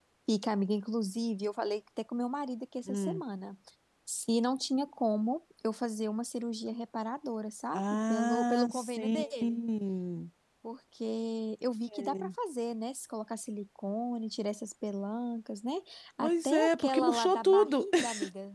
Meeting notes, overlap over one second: present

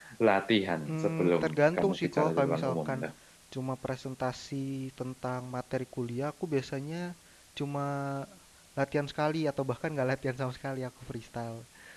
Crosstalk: present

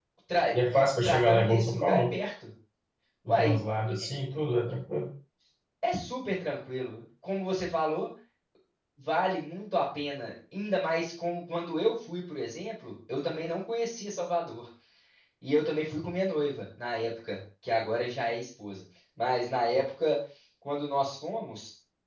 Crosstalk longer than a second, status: present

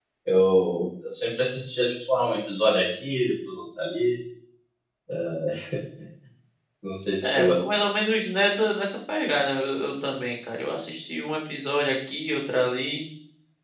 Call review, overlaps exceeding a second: none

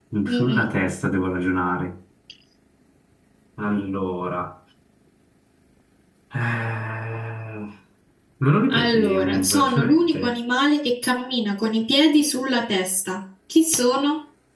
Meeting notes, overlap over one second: present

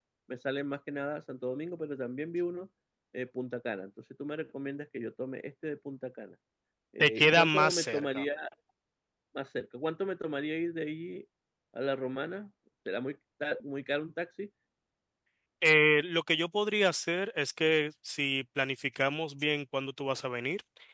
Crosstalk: present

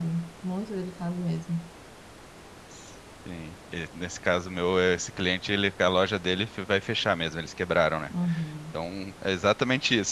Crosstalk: none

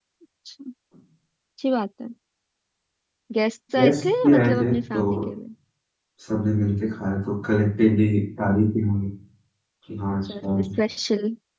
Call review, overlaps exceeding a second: present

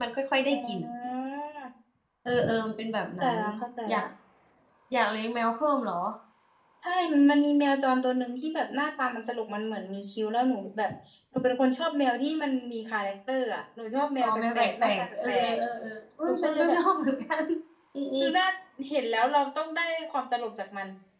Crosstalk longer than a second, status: present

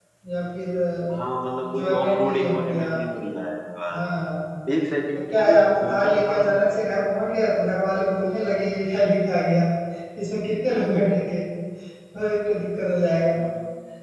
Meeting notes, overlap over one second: present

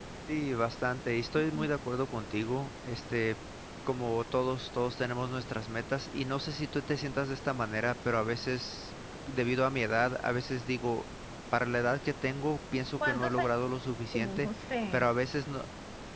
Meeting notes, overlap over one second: none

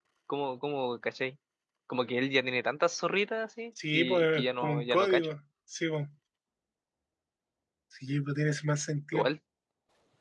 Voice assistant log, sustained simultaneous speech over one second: present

